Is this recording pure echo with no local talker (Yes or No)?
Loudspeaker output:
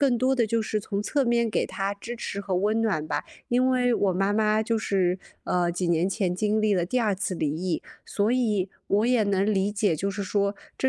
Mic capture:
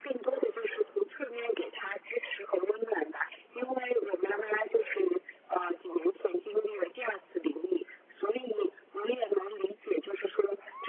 Yes